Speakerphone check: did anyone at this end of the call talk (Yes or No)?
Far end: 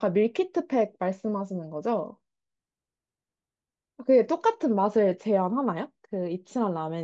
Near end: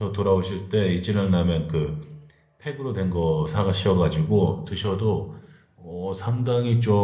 Yes